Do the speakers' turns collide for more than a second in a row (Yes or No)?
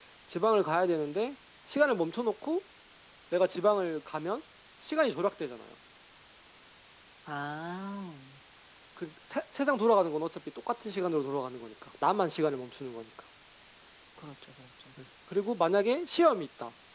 No